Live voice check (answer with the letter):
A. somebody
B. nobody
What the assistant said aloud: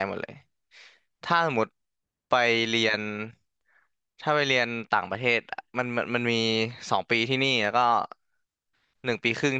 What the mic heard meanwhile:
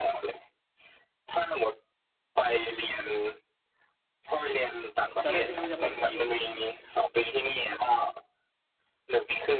A